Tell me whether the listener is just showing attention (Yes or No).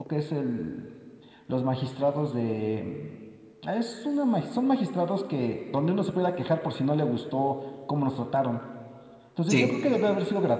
Yes